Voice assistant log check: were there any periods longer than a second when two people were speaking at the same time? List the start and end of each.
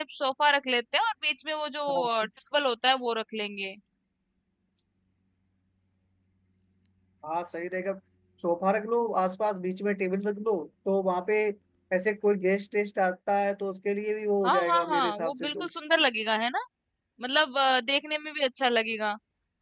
14.4-15.7

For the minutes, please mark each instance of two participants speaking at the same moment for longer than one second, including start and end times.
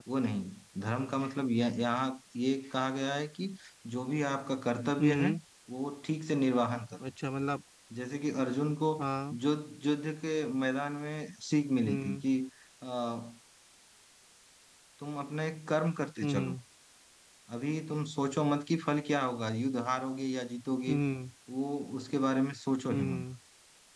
none

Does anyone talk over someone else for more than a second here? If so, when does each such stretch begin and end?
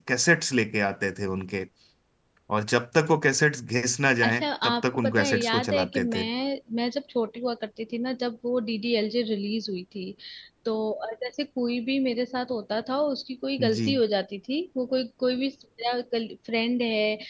4.2-6.2

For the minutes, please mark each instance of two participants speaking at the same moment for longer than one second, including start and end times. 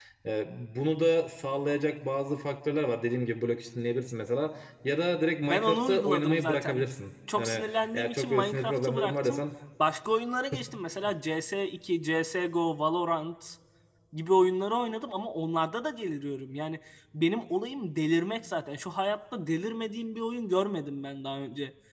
5.4-6.8, 7.4-9.4

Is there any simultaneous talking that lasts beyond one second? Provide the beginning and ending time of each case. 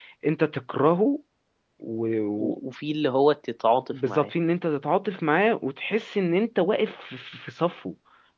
none

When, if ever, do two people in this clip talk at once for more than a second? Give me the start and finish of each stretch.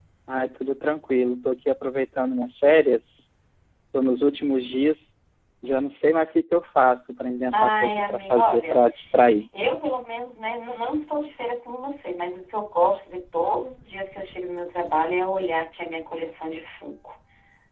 7.5-8.8

